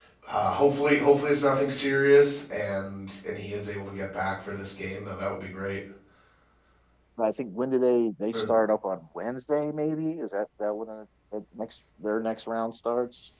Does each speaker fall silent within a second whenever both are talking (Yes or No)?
Yes